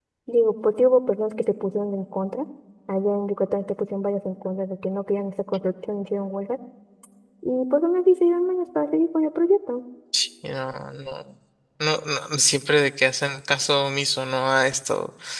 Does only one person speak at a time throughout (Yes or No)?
Yes